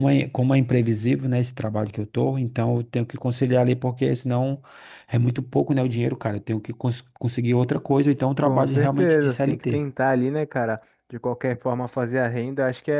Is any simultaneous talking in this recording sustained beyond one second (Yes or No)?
Yes